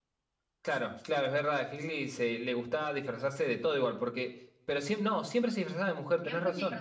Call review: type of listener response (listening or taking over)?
taking over